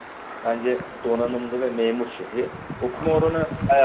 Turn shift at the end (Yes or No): No